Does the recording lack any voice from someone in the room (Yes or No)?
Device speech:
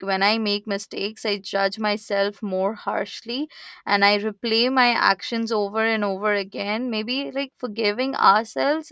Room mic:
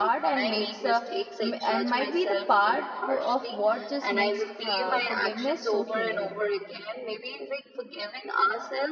No